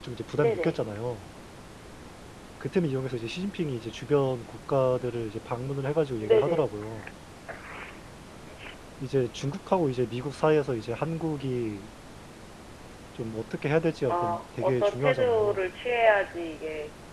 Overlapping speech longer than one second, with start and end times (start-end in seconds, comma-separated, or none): 14.1-15.7